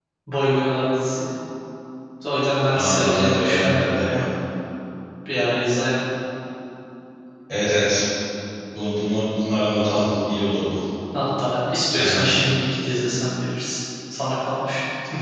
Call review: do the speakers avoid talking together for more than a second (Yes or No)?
No